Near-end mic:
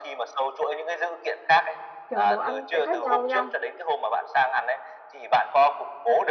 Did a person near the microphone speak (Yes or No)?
Yes